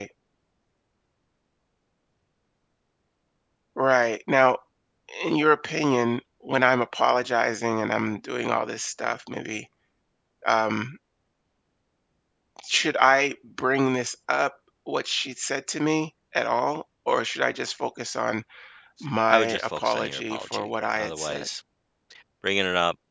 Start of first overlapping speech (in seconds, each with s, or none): 19.3 s